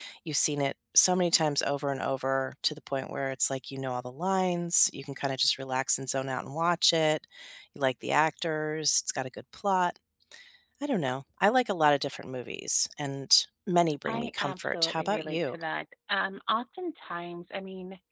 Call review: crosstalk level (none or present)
present